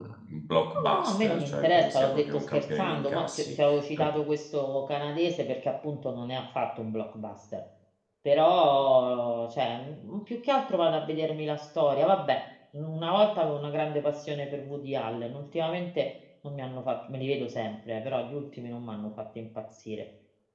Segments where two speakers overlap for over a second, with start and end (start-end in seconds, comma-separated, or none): 0.9-3.6